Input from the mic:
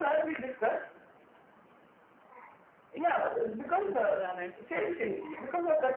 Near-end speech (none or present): present